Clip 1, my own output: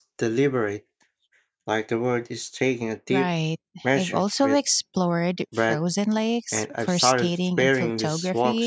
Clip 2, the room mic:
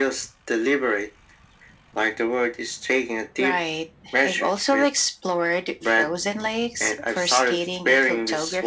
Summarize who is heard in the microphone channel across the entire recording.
echo only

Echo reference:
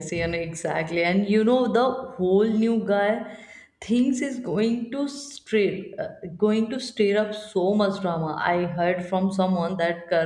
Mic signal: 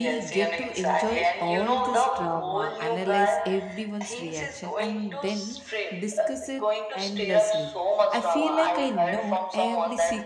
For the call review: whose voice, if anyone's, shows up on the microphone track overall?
both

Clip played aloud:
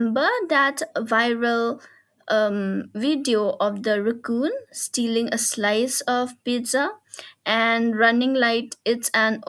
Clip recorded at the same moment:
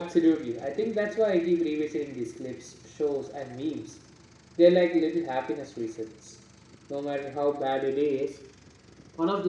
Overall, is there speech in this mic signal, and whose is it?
user only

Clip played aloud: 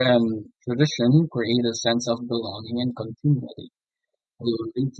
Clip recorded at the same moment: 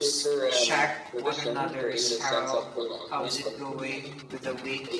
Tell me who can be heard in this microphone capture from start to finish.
both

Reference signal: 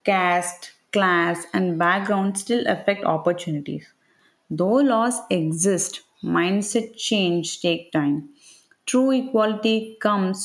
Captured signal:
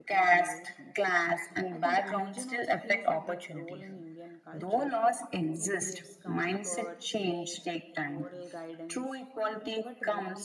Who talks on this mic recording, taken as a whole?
both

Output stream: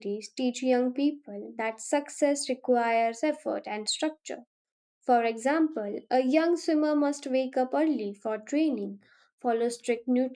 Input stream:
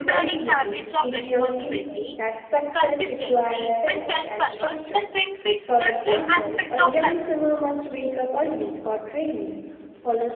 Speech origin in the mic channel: both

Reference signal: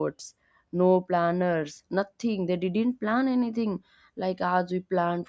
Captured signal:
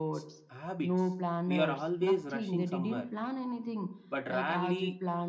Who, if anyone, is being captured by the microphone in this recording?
both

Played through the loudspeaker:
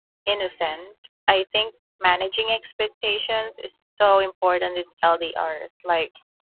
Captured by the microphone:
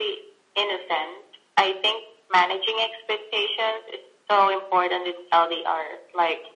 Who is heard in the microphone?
echo only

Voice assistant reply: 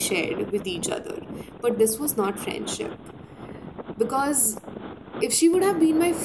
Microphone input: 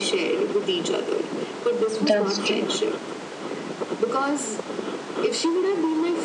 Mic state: both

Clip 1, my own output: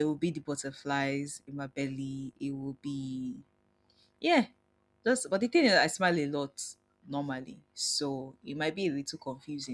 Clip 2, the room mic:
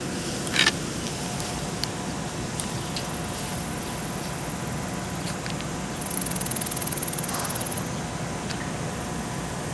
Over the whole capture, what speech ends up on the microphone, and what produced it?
neither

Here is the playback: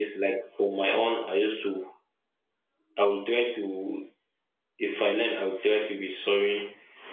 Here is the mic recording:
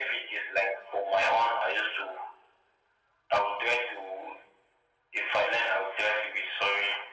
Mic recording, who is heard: echo only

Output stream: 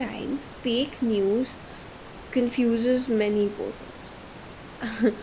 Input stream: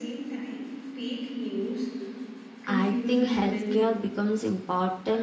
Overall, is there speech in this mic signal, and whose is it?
both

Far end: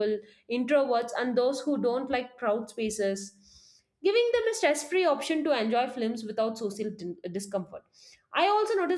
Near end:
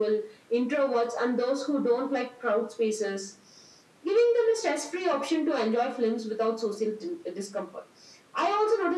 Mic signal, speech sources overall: echo only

